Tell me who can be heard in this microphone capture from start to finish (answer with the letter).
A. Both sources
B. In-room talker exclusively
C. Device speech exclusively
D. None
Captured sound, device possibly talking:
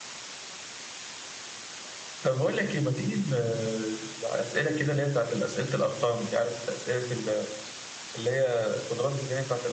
B